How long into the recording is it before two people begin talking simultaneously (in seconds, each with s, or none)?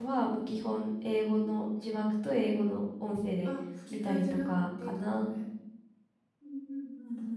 3.9 s